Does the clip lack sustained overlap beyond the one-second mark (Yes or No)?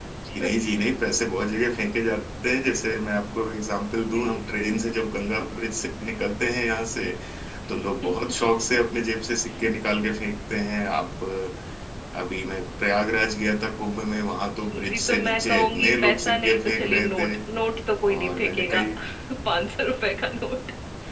No